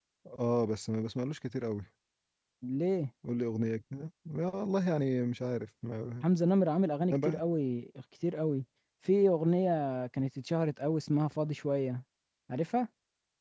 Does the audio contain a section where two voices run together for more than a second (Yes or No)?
No